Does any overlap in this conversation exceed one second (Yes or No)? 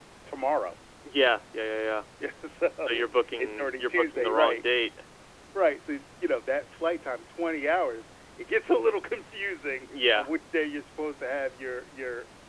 Yes